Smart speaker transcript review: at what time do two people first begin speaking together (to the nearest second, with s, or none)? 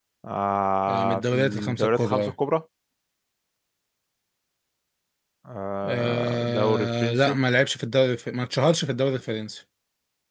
1 s